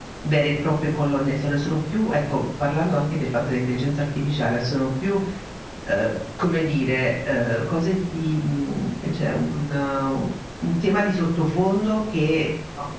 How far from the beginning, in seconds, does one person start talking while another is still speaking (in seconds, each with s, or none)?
none